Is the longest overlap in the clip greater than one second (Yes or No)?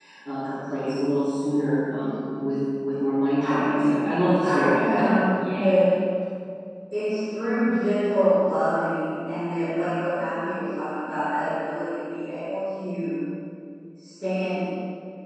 Yes